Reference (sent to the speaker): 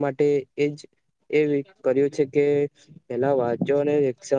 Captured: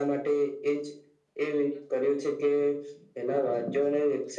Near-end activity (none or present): none